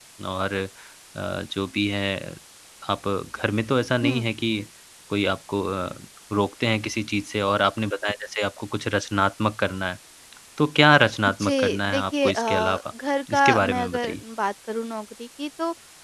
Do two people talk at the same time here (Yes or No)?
Yes